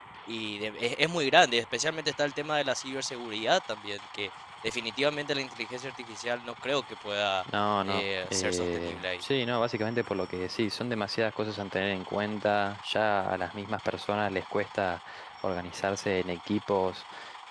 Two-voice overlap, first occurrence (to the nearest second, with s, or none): 8 s